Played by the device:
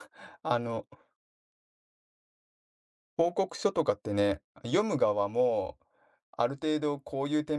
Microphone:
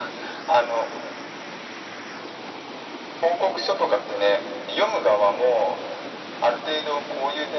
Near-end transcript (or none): none